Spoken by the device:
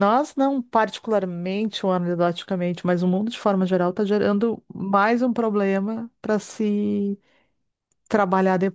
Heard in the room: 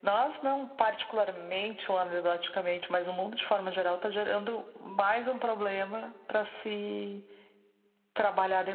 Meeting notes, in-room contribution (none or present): none